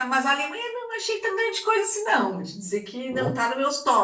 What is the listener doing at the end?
listening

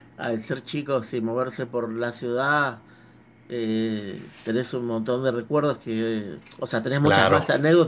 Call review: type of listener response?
listening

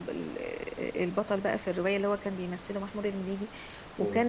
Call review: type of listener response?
listening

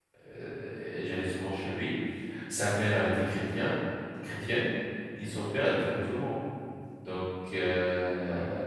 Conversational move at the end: listening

